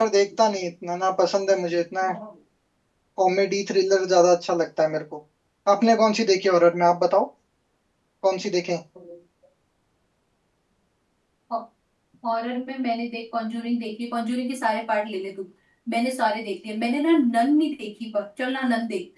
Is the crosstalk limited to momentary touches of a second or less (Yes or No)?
Yes